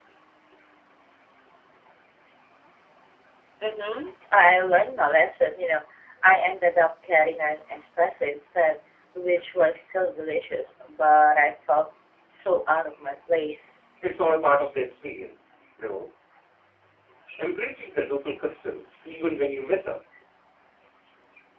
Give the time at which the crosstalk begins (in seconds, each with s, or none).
none